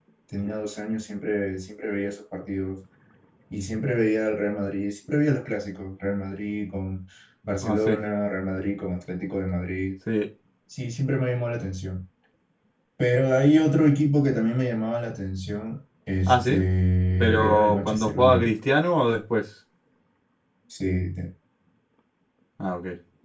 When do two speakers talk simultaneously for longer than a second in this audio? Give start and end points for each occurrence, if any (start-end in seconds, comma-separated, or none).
17.2-18.6